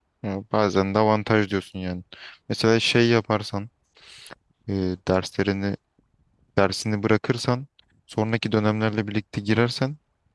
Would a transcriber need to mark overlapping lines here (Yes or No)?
No